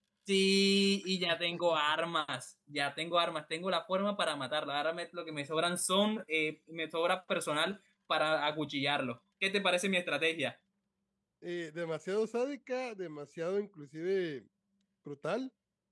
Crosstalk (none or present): none